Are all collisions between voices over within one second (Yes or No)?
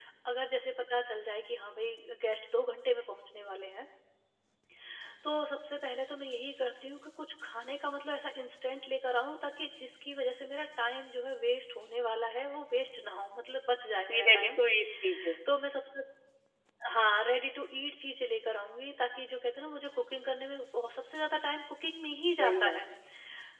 Yes